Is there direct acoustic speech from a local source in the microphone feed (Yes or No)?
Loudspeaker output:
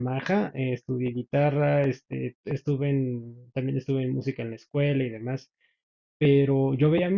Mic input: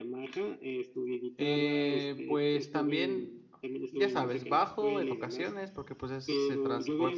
Yes